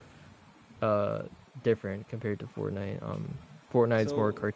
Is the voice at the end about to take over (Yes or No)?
No